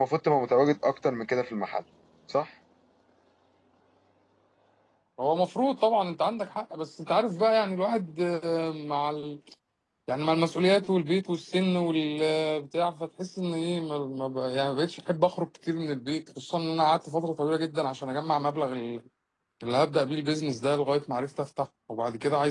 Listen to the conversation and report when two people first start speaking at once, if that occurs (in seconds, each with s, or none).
none